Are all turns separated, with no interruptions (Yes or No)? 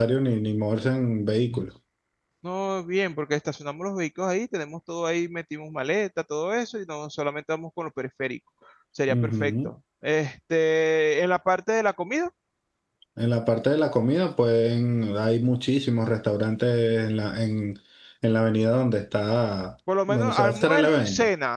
No